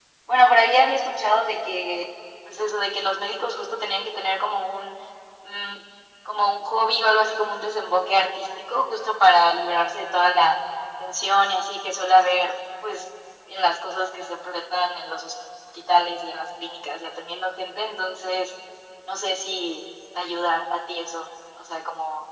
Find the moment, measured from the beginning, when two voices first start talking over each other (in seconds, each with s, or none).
none